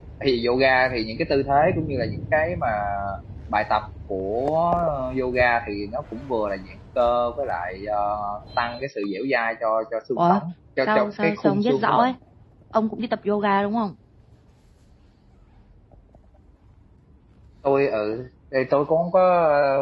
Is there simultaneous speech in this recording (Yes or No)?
Yes